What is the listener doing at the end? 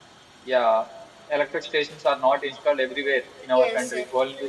listening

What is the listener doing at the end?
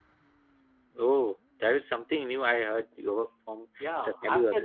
taking over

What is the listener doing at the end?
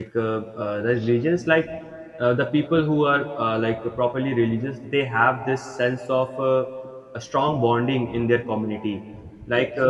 listening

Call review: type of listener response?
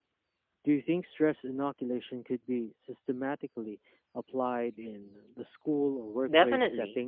taking over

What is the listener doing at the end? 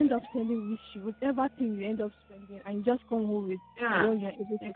taking over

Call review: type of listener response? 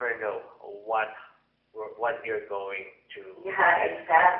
taking over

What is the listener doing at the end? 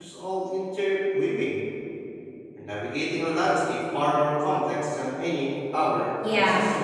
taking over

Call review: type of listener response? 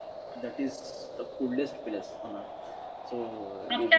taking over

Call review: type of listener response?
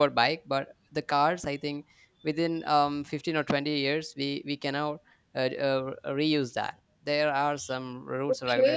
taking over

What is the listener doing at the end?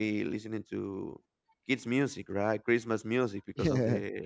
listening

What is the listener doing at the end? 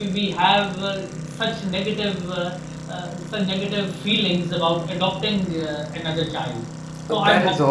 taking over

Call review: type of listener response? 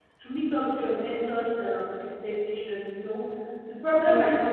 listening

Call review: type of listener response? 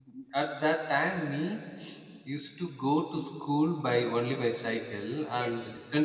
listening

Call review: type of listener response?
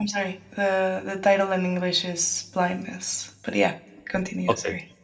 taking over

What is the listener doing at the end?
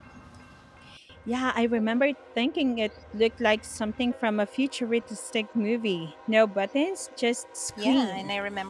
taking over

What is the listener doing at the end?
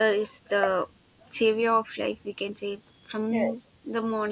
listening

